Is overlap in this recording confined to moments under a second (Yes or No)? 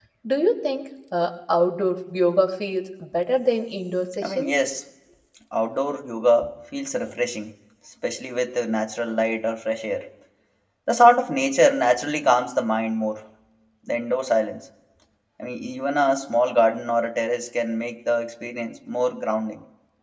Yes